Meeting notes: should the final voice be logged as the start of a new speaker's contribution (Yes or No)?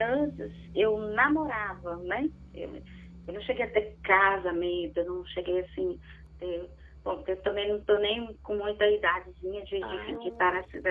No